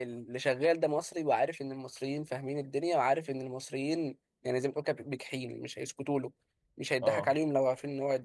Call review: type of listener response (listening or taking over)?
listening